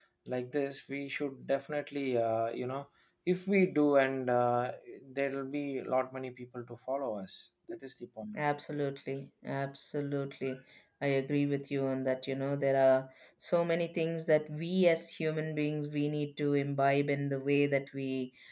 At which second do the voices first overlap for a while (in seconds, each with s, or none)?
none